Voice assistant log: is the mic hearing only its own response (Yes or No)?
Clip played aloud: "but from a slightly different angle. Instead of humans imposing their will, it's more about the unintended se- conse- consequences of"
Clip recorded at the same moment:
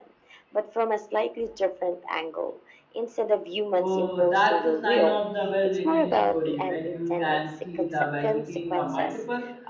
No